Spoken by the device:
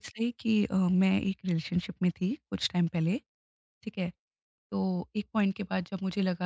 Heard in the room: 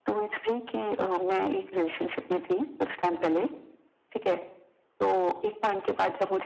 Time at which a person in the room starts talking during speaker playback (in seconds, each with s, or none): none